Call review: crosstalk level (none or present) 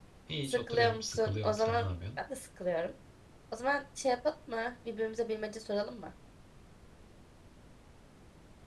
present